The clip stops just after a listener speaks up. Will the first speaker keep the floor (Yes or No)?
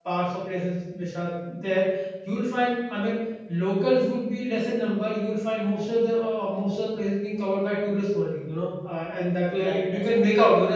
Yes